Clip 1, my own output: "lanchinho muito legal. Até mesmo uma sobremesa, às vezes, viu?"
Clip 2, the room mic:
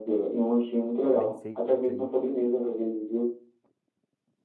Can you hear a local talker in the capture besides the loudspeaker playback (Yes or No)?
Yes